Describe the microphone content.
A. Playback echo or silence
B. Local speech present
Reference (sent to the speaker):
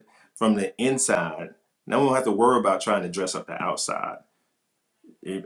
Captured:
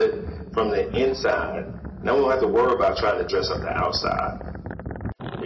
A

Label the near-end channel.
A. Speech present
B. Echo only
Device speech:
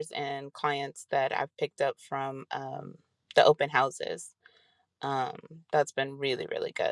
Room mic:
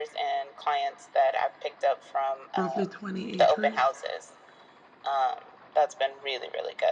A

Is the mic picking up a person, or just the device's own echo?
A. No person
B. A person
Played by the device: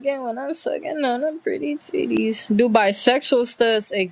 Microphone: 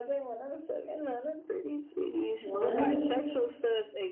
B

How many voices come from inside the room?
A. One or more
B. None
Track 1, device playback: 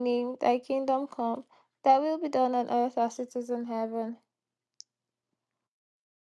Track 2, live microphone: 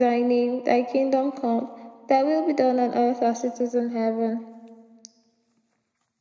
B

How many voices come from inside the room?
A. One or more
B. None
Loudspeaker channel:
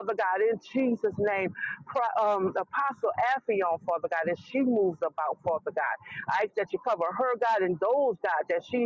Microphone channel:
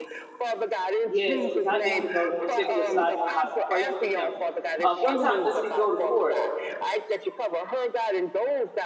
A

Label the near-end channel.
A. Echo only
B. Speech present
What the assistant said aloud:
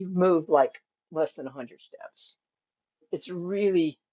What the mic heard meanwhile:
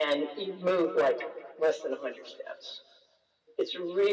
A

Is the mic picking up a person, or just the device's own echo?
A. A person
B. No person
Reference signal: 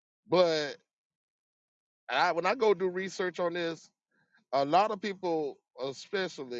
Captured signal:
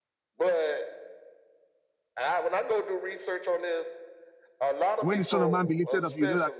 A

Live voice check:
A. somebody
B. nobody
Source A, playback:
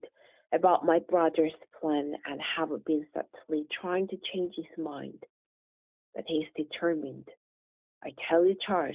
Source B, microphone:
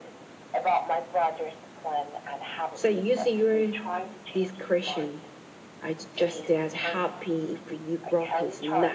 A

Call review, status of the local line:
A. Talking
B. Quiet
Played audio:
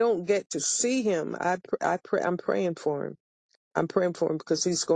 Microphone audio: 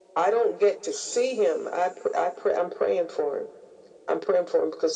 B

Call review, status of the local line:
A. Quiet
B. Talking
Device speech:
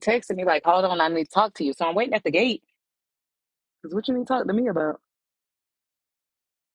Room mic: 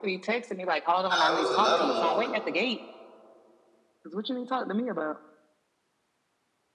B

